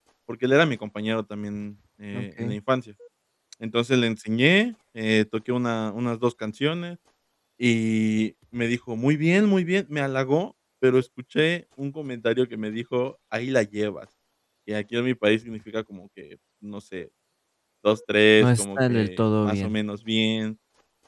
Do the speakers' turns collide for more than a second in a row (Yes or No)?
Yes